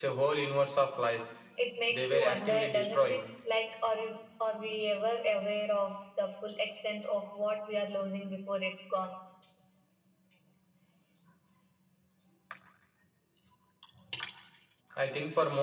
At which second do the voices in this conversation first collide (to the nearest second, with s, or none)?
2 s